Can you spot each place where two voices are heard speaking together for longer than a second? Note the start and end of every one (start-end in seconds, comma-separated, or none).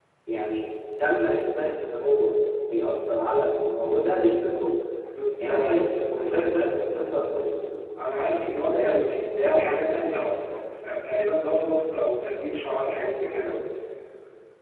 8.5-9.7